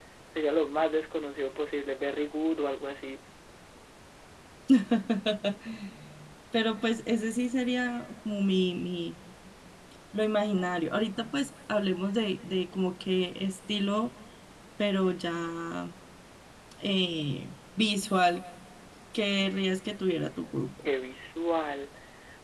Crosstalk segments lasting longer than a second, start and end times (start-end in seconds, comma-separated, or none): none